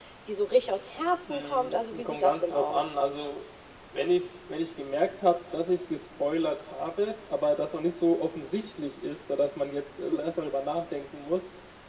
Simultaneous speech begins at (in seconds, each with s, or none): 1.3 s